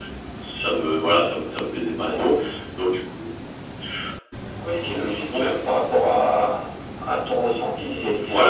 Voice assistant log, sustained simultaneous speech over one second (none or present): none